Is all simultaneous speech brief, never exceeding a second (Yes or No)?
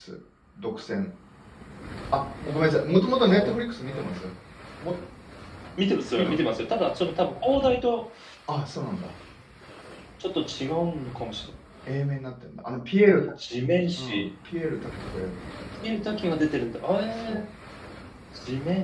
Yes